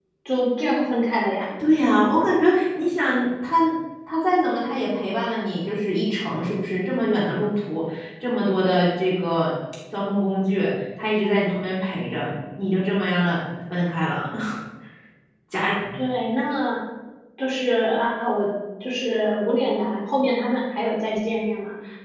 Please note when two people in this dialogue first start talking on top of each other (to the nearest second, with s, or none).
none